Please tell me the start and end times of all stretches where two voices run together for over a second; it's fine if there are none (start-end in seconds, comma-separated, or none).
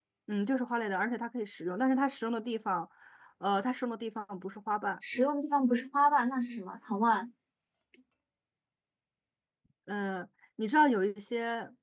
none